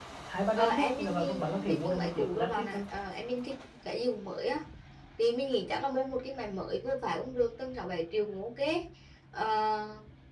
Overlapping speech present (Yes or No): Yes